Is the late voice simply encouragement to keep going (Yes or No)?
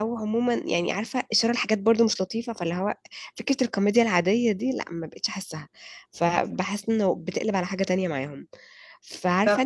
Yes